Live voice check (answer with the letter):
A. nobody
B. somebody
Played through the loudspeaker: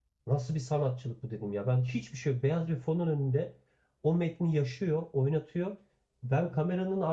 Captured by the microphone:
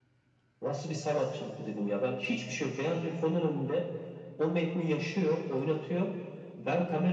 A